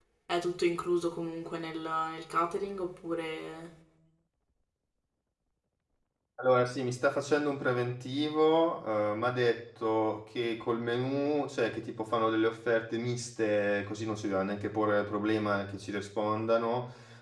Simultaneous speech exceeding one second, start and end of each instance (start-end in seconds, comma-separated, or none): none